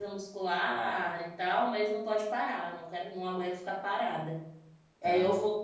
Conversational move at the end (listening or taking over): listening